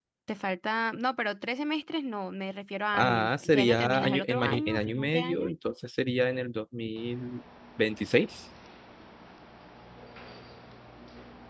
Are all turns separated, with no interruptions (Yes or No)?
No